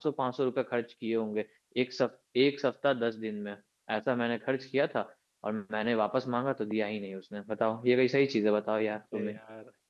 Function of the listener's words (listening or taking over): taking over